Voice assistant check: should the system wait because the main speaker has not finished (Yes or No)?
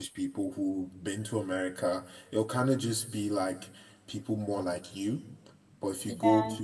Yes